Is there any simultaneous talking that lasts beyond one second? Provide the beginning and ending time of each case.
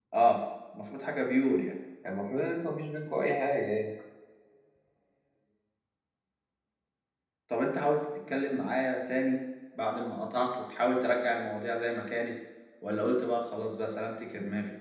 none

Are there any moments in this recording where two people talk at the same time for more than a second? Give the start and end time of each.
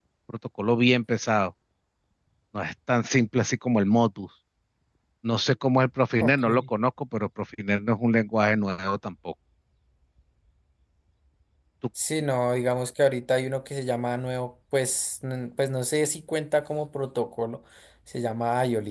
none

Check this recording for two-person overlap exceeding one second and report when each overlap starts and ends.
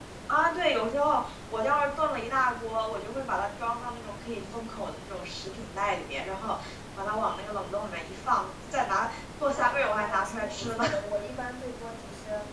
9.4-10.8

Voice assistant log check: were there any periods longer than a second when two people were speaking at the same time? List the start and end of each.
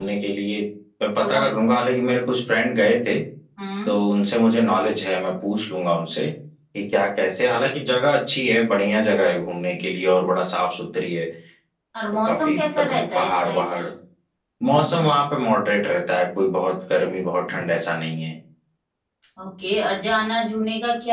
12.1-13.6

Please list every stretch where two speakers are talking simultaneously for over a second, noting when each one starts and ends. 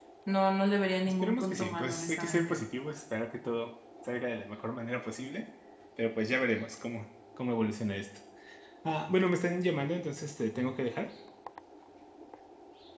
1.1-2.6

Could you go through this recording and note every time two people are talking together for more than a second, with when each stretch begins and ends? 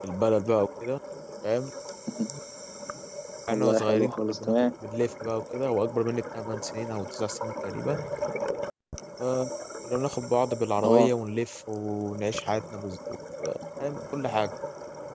3.5-4.7

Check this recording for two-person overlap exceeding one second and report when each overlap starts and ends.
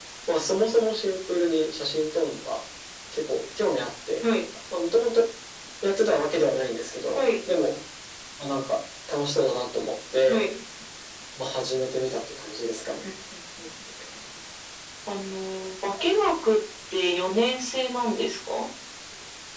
none

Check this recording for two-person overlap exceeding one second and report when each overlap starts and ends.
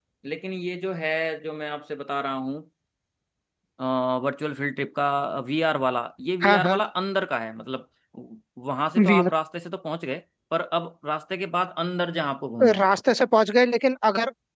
none

